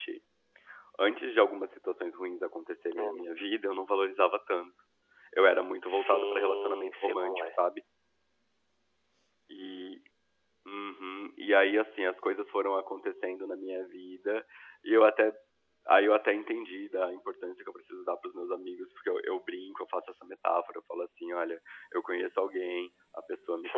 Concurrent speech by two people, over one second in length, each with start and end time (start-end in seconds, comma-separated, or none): 5.9-7.5